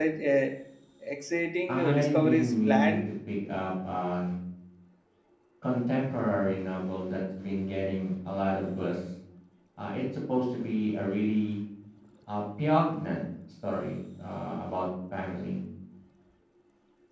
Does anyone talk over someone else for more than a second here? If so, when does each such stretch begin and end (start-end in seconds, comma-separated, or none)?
1.7-3.0